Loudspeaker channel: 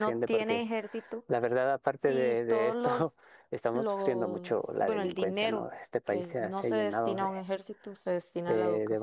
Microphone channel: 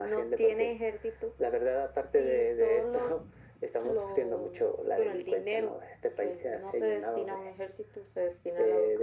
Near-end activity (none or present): none